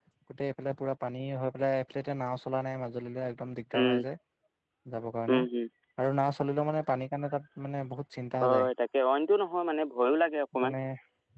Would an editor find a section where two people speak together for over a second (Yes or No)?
No